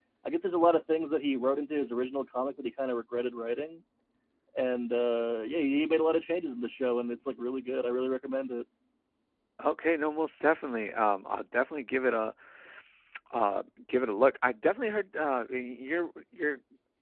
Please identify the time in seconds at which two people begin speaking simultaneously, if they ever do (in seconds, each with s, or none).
none